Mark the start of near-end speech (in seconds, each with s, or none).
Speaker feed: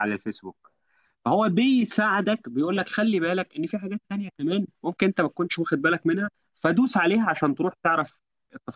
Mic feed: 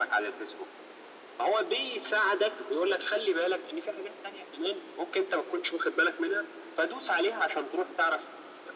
none